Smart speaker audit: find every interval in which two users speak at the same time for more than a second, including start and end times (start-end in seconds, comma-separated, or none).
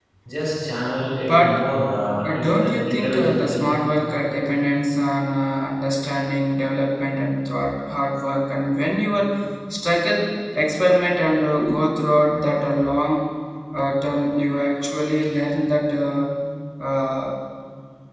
2.2-3.6